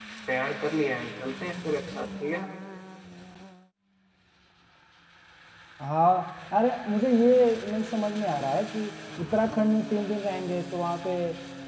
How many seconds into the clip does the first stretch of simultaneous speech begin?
none

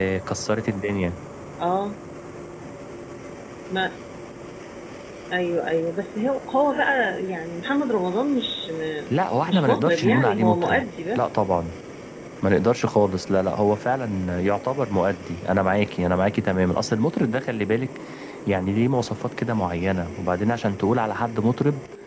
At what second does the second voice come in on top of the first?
9.5 s

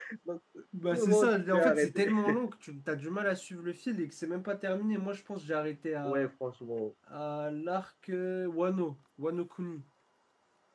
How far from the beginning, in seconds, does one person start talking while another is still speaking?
0.9 s

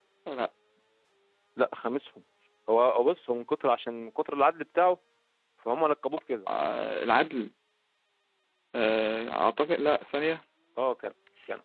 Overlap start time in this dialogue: none

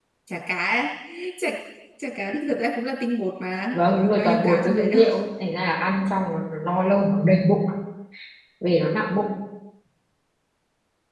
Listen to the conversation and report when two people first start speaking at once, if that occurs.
3.7 s

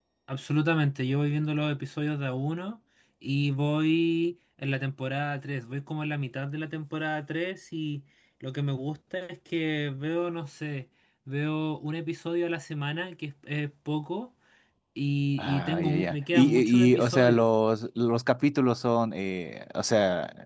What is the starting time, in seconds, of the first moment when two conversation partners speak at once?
15.4 s

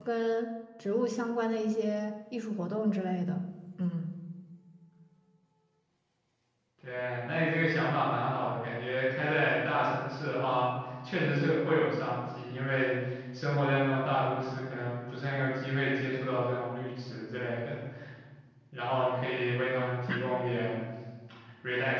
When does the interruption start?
none

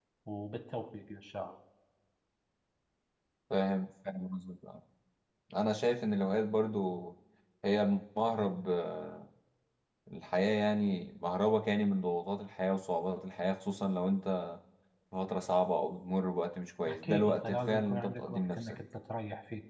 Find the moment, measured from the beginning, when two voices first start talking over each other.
16.9 s

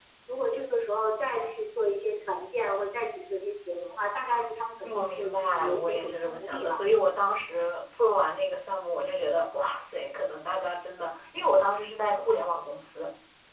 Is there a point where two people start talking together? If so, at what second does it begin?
4.8 s

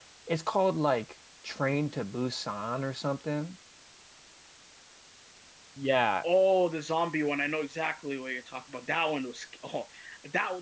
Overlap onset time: none

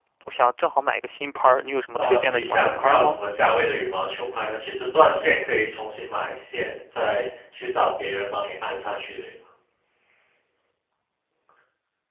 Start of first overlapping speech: 2.0 s

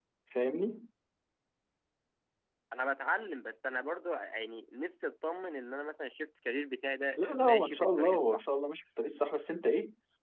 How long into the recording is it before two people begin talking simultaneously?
7.2 s

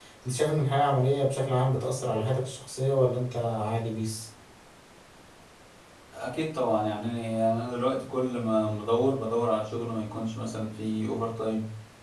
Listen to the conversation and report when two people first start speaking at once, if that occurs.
none

